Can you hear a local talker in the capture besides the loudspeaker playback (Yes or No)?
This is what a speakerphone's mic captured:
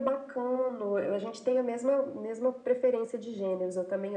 No